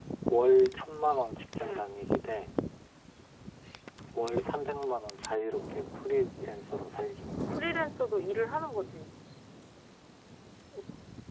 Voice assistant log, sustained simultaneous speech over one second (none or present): none